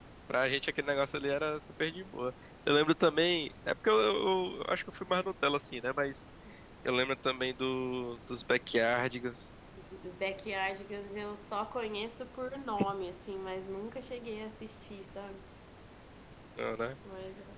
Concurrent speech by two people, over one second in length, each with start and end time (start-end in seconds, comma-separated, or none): none